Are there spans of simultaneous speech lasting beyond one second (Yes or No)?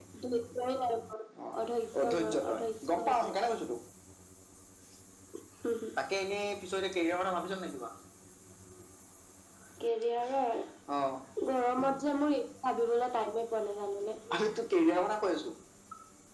Yes